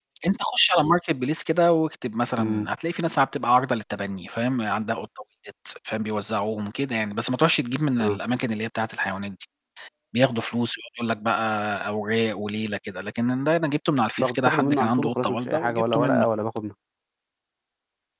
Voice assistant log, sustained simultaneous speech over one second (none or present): present